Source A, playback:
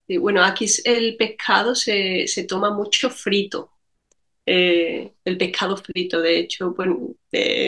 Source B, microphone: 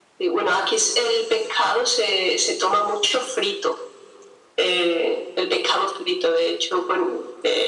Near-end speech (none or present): none